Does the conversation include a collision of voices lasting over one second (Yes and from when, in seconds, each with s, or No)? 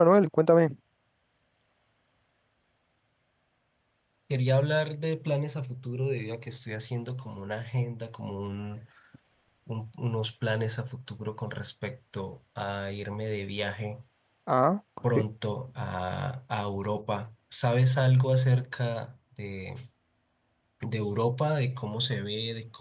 No